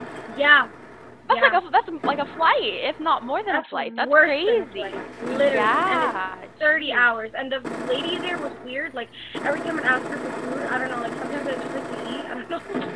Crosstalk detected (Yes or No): Yes